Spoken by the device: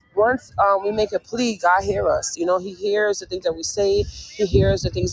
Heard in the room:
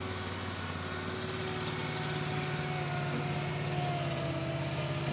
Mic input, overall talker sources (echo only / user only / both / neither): neither